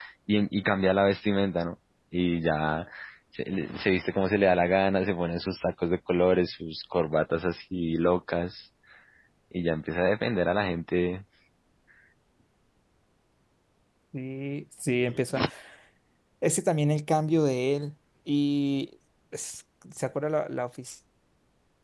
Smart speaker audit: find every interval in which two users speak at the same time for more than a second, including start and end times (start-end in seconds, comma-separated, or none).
none